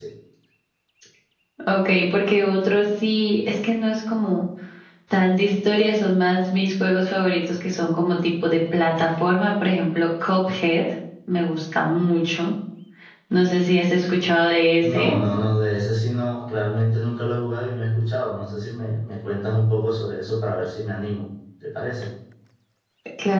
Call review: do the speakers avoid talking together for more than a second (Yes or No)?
Yes